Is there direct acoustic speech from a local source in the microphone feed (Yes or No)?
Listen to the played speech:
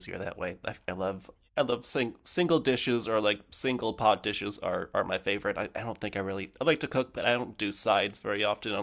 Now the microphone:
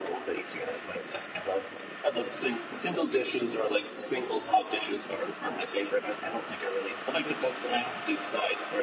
No